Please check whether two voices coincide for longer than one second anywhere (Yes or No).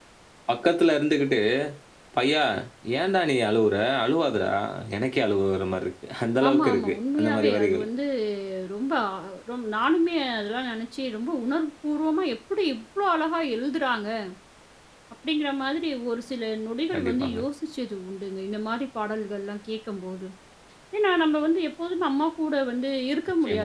Yes